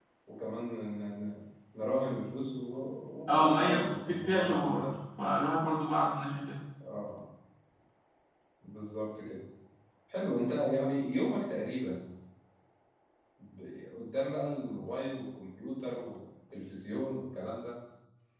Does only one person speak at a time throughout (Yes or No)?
No